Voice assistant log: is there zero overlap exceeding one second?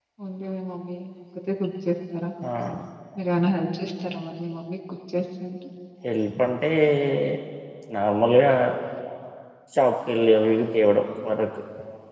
Yes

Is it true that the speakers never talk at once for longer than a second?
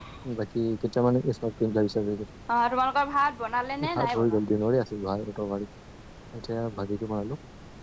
Yes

